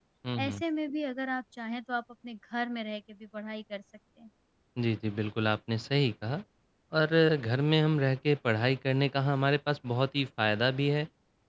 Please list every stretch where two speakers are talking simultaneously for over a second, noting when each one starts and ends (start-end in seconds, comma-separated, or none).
none